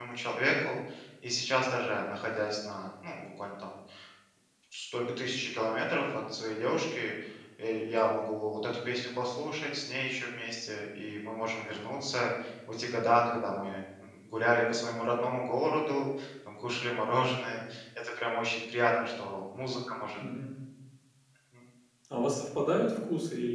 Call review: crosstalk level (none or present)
none